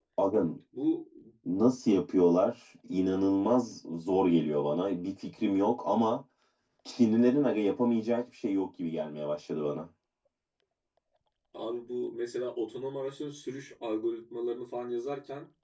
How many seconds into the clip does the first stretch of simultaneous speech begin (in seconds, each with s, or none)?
none